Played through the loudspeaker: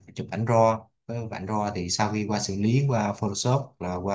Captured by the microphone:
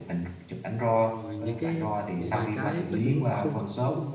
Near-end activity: present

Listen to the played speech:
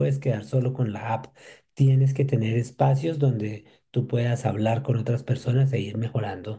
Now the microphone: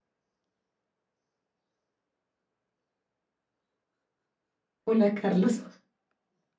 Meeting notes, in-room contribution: present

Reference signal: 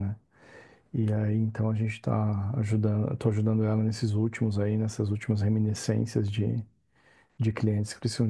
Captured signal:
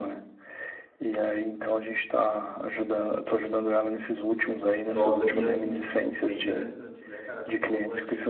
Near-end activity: present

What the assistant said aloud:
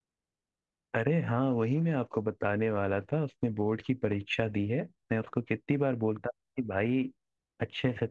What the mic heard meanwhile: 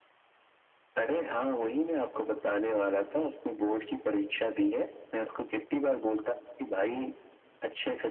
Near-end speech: none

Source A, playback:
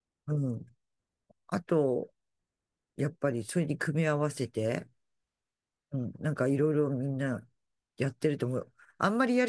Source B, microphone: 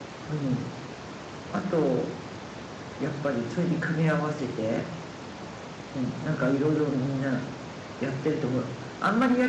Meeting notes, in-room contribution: none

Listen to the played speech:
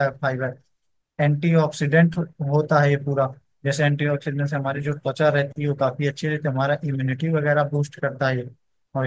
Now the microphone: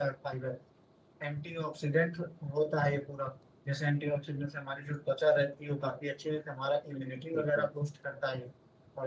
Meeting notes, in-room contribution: present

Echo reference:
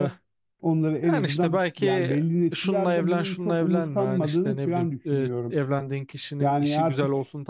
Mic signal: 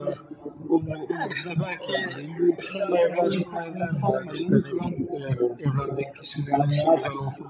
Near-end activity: none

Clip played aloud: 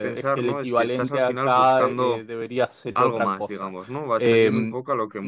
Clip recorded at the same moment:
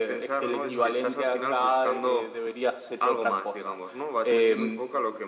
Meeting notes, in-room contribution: present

